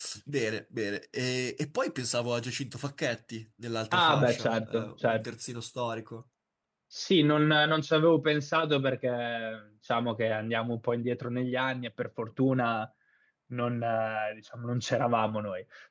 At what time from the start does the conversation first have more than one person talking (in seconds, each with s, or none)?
3.9 s